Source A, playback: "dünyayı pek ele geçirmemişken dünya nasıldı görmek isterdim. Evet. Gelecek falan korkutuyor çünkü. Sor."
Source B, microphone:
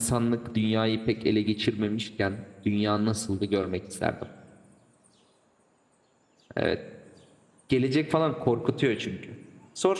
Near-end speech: none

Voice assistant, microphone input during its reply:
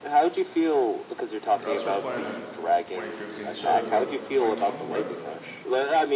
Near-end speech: present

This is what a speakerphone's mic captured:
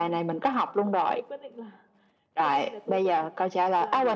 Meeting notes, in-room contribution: present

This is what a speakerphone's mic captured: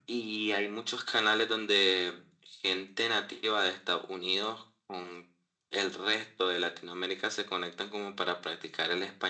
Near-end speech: none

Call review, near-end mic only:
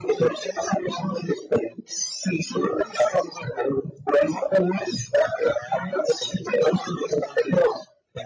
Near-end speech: none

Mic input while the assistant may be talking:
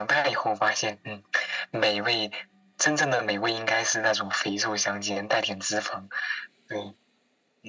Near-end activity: none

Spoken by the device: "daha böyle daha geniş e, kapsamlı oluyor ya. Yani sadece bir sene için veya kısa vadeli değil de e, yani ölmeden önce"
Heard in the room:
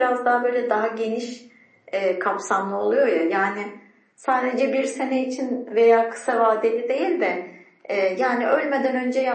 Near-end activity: none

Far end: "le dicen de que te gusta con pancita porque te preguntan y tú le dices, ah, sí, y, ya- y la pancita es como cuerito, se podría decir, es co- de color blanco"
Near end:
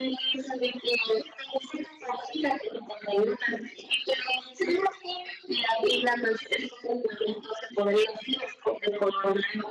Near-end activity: none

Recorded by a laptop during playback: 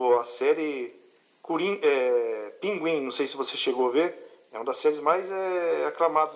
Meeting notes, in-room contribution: none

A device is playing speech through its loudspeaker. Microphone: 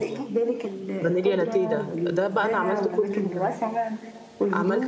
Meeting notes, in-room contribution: present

